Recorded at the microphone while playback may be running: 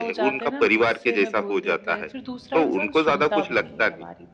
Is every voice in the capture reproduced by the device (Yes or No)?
No